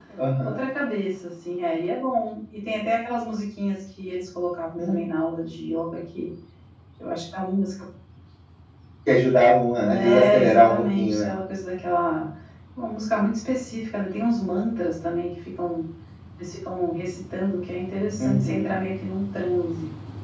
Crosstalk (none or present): present